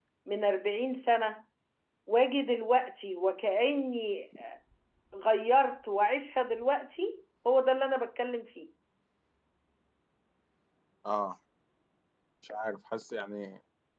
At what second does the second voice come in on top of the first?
none

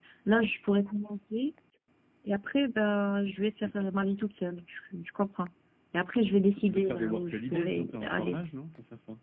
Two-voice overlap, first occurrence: 7 s

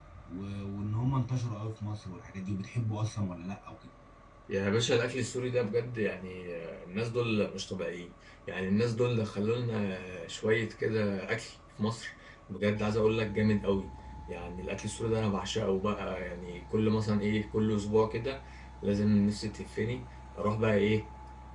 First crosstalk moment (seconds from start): none

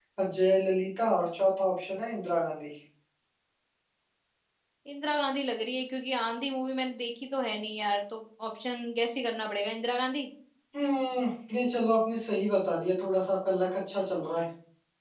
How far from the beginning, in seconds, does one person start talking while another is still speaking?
none

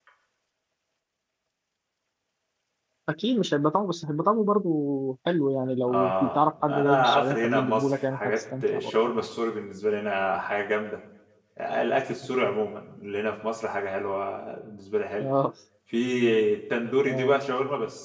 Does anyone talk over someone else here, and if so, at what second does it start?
6 s

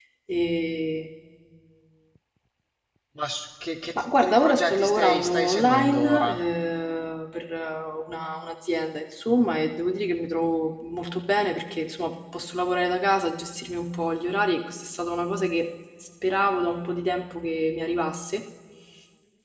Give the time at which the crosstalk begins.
4 s

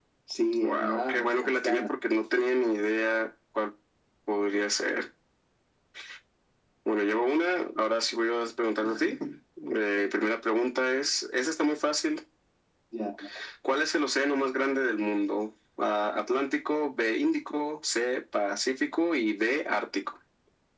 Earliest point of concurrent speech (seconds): 1 s

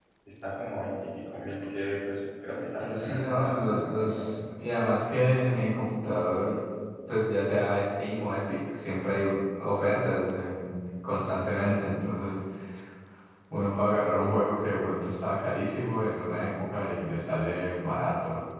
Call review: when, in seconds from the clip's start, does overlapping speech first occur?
3 s

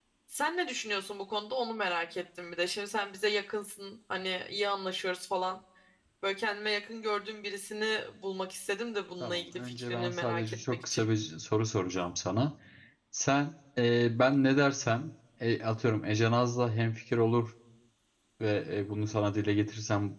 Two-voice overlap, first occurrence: 9 s

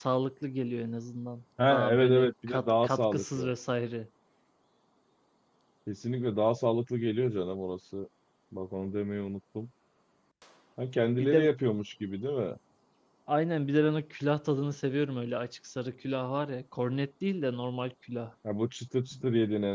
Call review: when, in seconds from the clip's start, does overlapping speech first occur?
2 s

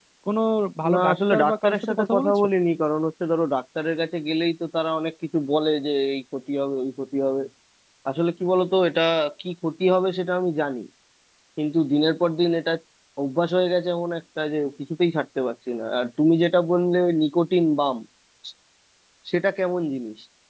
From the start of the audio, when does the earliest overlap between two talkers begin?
1 s

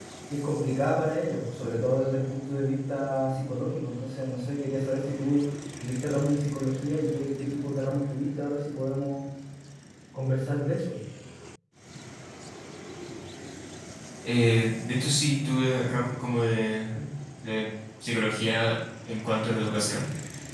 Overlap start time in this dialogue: none

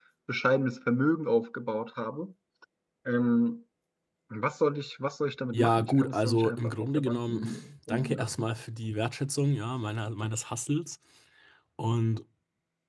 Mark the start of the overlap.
6 s

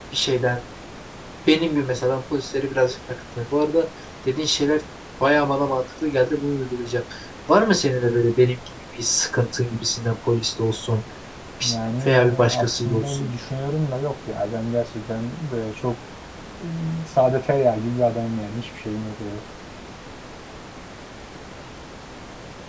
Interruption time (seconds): 12 s

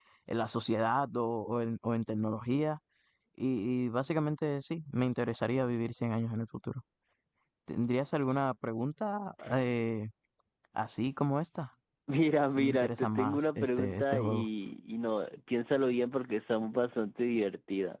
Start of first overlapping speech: 13 s

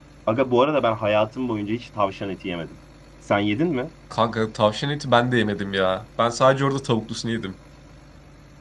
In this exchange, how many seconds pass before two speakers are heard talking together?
none

